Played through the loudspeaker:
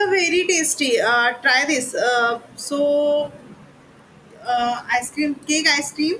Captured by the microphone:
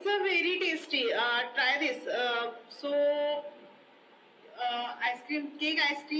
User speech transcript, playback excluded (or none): none